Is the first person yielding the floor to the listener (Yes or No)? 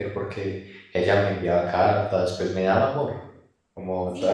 Yes